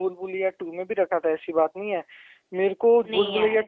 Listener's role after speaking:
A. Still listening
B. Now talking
A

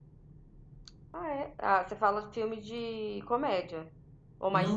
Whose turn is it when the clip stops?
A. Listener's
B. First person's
A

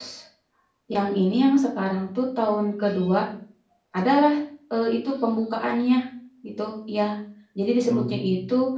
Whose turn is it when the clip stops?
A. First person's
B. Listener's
A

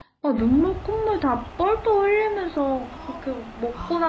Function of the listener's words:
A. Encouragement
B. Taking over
A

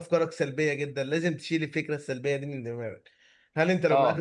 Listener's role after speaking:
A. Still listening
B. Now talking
A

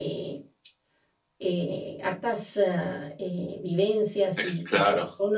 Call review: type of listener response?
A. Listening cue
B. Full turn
A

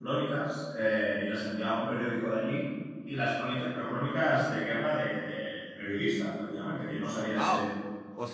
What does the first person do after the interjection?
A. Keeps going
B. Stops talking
B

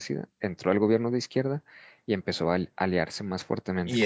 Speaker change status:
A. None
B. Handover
B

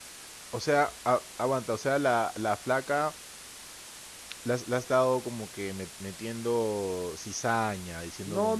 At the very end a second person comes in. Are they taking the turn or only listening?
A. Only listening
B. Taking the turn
B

